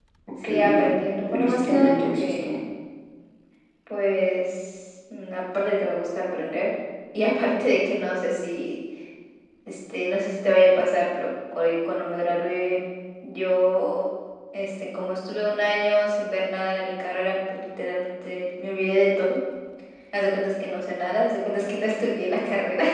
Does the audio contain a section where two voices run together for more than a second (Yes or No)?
Yes